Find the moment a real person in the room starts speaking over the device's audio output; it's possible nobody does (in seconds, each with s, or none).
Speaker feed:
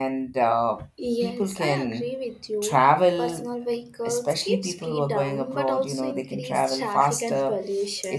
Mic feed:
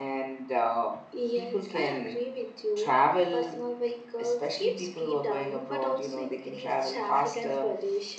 none